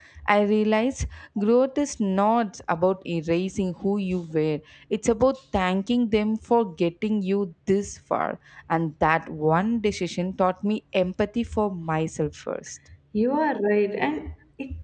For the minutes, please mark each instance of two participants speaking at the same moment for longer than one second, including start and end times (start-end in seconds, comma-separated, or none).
none